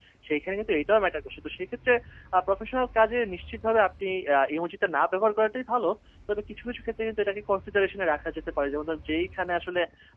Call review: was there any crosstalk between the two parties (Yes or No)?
No